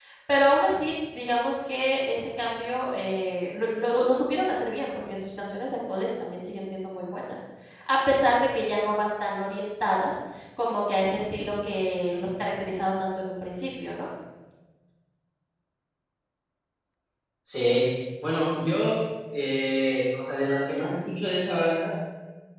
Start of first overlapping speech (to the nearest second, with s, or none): none